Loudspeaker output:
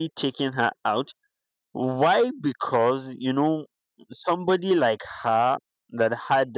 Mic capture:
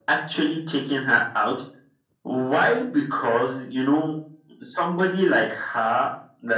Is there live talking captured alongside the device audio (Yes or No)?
No